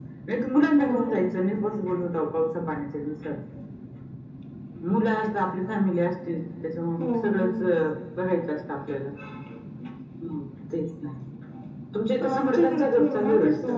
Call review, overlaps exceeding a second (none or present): present